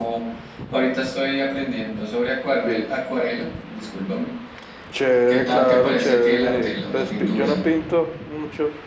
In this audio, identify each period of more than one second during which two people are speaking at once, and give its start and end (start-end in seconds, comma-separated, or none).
5.3-7.6